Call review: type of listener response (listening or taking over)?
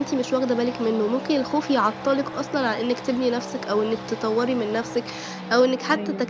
listening